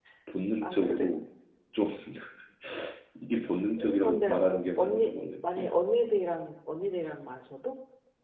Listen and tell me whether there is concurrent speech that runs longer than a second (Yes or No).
Yes